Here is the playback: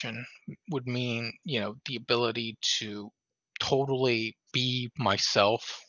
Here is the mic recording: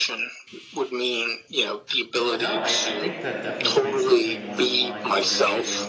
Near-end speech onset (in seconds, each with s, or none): 2.3 s